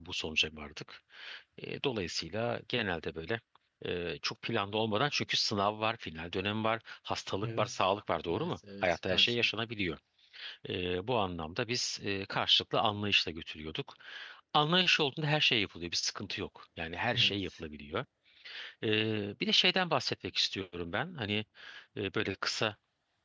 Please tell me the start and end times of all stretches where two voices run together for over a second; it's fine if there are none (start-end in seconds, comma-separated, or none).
8.3-9.5